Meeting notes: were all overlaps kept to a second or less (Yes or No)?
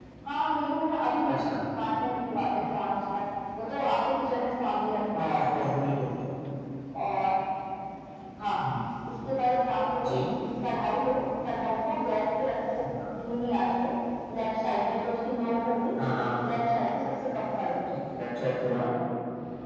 Yes